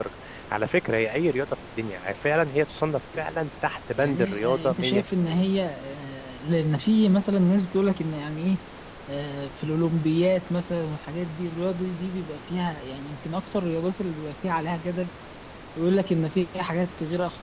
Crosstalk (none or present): present